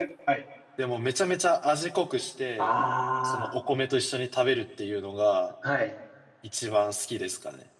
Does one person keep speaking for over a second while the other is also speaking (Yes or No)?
No